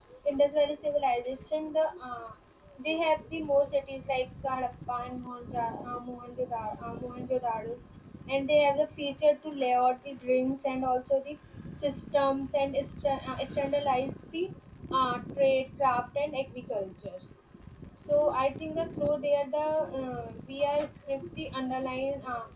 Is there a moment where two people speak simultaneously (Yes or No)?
No